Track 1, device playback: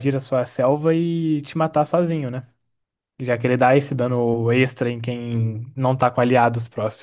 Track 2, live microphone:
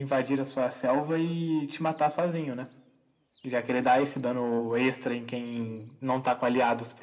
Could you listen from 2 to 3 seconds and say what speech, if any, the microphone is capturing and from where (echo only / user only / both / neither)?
echo only